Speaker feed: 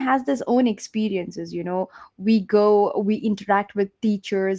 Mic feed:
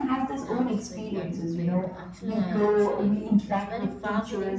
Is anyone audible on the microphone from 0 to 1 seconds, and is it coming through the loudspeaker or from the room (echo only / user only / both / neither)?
both